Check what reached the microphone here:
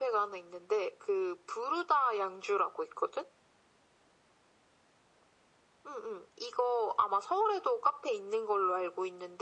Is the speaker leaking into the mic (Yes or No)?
Yes